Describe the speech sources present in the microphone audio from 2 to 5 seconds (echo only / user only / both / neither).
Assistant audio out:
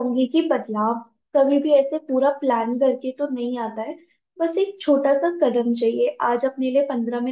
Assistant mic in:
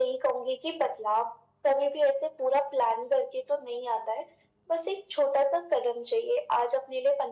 echo only